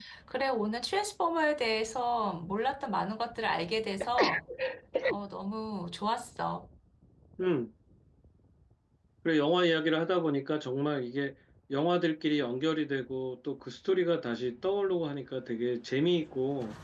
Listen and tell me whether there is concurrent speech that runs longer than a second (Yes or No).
No